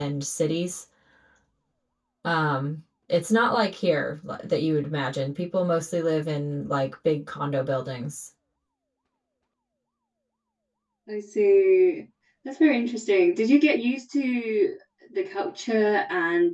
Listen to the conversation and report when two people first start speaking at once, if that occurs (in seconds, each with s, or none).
none